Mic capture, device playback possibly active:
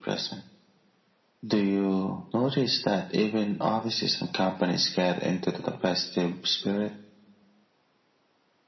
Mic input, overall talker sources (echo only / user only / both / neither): echo only